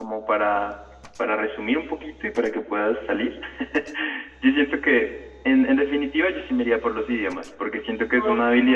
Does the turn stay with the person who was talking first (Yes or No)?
Yes